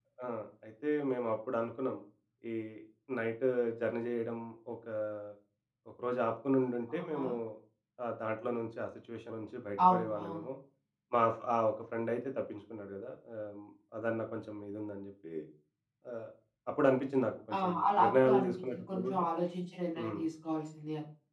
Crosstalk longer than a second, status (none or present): present